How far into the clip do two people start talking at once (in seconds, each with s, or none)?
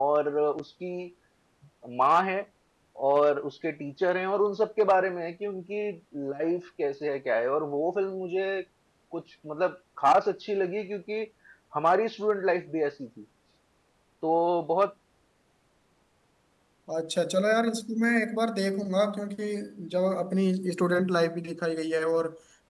none